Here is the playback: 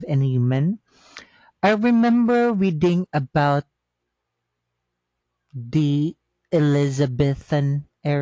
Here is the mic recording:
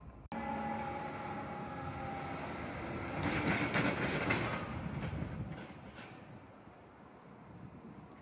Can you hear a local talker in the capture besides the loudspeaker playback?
No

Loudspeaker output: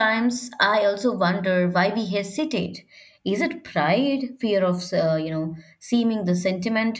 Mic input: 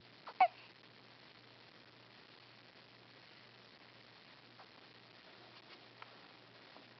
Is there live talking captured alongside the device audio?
No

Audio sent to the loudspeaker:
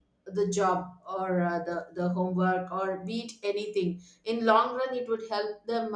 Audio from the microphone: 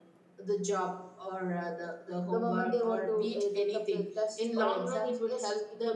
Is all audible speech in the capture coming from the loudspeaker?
No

